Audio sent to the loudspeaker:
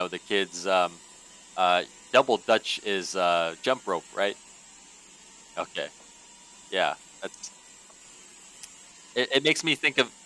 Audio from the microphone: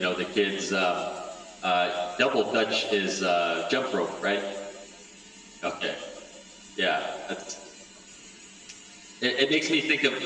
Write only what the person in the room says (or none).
none